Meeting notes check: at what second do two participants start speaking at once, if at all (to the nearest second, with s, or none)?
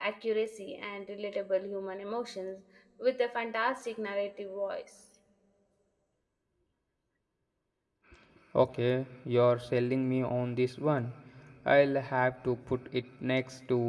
none